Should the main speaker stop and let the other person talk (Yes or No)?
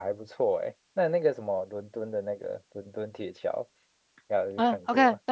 Yes